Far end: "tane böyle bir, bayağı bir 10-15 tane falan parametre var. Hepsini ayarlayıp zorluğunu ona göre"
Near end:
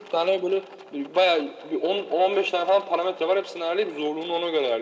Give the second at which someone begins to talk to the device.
none

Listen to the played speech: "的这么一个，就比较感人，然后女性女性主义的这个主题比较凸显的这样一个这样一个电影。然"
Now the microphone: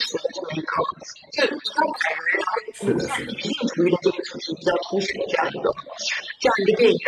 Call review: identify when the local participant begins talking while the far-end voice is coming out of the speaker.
2.7 s

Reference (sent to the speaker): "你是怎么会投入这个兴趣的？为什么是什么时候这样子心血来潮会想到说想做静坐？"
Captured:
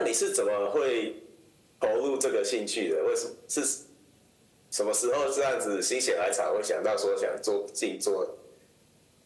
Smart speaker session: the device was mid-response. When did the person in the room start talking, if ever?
none

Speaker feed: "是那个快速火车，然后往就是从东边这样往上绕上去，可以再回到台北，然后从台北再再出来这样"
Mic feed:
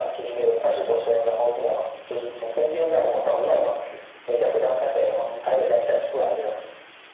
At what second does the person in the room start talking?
none

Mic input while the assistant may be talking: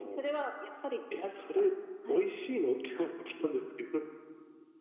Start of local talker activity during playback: none

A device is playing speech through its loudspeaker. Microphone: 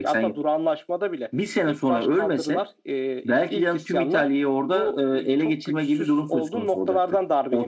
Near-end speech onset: none

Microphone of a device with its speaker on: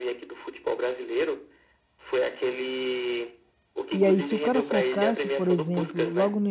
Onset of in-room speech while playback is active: 3.9 s

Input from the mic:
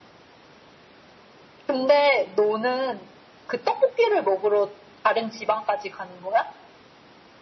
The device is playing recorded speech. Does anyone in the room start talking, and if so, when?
none

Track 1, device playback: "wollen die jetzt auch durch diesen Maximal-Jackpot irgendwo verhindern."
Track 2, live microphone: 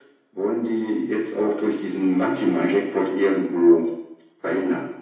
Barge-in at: none

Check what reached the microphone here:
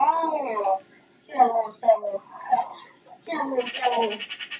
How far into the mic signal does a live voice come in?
none

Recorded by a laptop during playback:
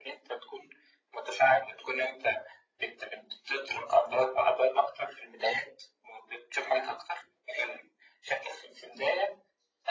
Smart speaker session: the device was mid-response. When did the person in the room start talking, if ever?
none

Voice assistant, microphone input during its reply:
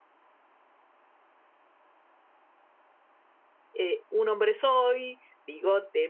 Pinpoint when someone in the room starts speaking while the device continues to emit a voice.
3.7 s

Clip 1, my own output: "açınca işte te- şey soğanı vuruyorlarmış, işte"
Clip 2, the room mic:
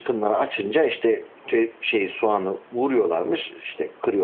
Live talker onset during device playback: none

